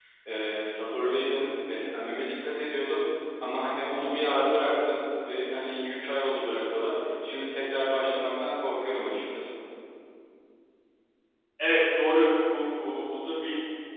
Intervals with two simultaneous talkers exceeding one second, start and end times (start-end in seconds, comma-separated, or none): none